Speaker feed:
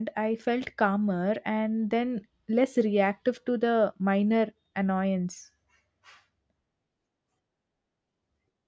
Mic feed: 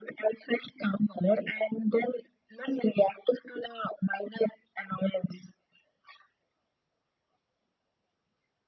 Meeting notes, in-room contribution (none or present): none